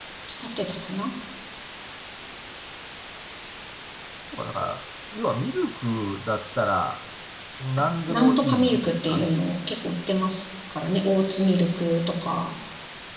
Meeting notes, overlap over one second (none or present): present